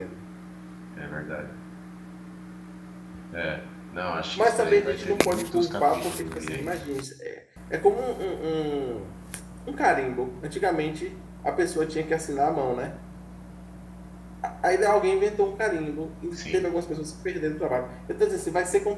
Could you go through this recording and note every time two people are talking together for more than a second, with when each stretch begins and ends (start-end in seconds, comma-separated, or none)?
4.4-6.8